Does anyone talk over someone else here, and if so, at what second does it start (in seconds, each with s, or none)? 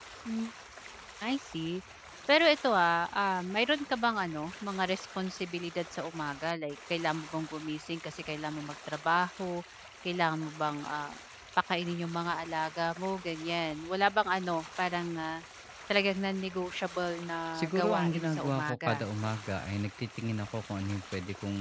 17.5 s